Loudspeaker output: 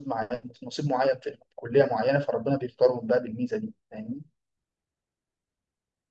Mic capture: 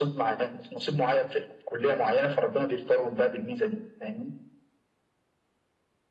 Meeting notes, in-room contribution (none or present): none